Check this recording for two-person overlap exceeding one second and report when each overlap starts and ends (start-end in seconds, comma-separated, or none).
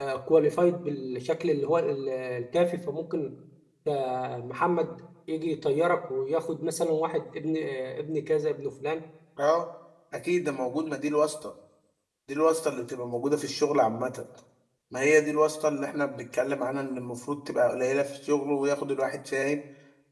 none